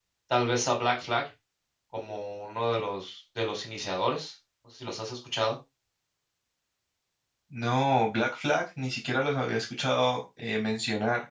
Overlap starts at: none

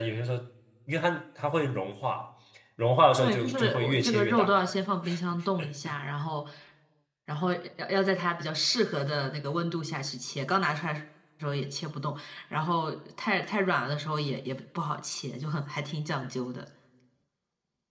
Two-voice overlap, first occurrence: 3 s

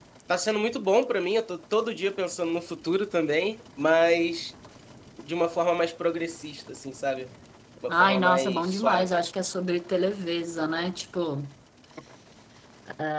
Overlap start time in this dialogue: 8 s

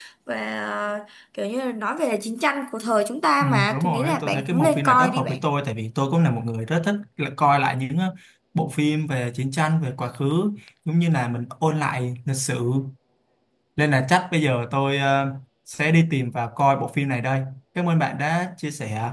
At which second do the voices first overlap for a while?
3 s

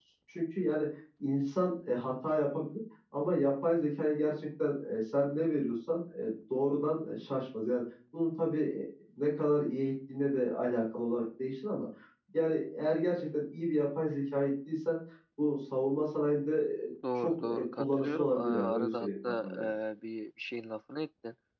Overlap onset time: 17 s

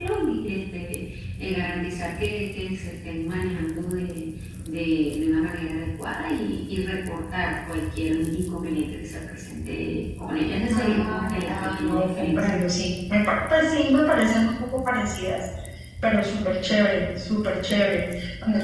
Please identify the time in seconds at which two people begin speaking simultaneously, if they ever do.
11 s

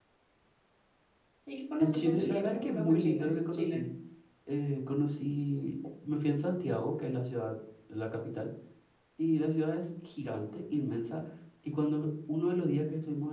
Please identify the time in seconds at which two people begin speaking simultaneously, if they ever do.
2 s

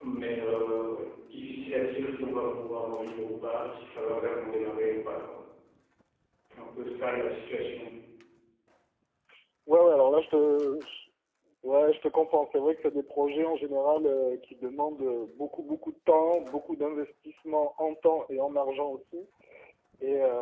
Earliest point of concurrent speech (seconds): none

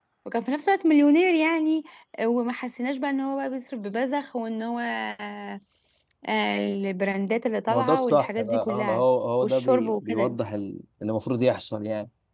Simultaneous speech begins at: 8 s

